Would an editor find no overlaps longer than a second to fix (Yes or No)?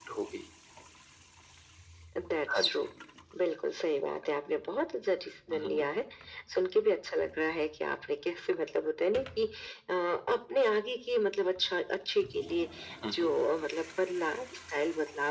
Yes